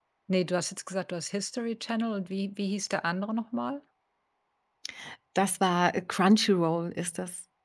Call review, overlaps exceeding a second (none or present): none